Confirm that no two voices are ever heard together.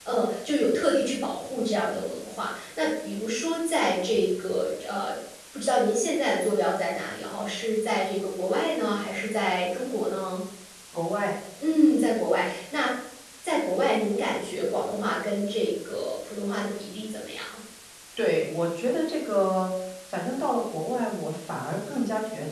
Yes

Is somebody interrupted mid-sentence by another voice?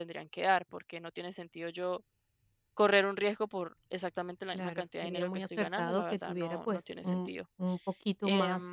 Yes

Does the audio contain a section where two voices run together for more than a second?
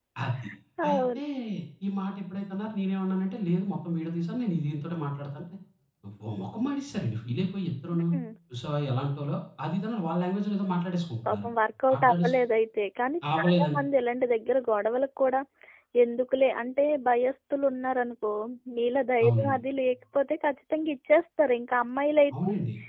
No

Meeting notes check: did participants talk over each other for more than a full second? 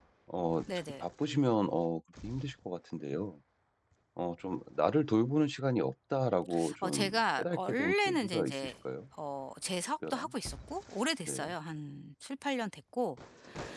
Yes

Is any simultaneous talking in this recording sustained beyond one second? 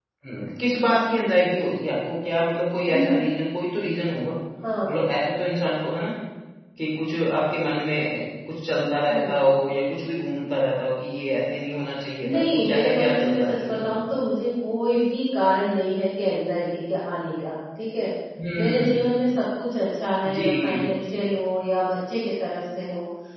Yes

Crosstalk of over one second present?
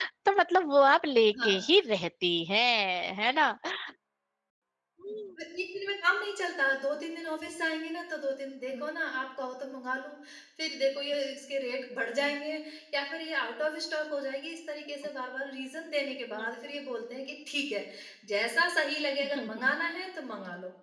No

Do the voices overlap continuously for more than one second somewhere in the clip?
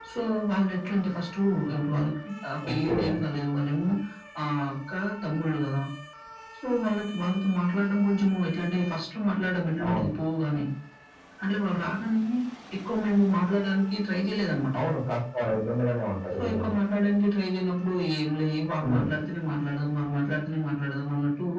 No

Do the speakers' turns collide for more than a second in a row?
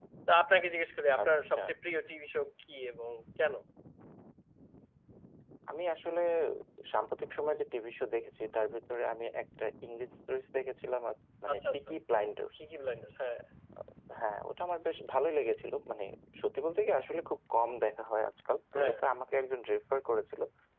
No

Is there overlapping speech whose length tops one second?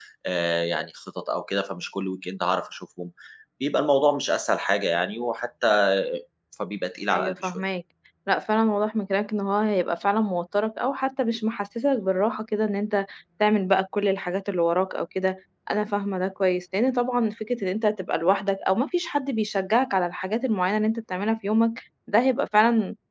No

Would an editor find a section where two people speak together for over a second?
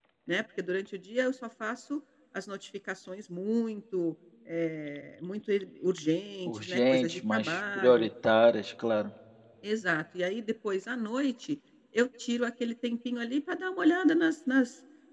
Yes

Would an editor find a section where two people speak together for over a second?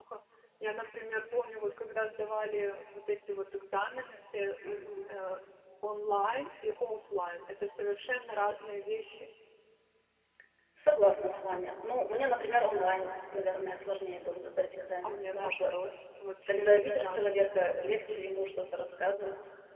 Yes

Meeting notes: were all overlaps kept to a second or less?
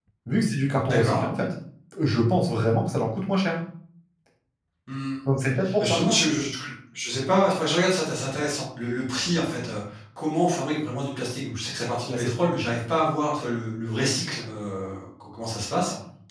Yes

